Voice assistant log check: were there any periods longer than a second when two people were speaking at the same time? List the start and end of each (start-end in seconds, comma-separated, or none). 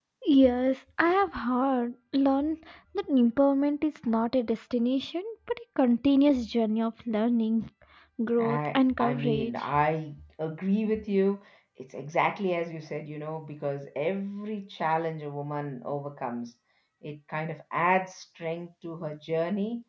8.4-9.7